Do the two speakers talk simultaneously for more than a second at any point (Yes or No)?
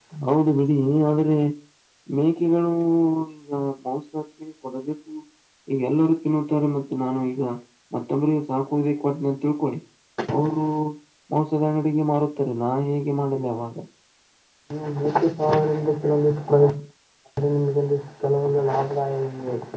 No